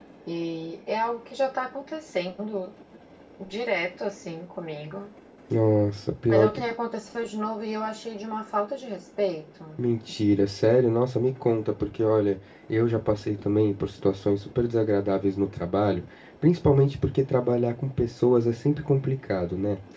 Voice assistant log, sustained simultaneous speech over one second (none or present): none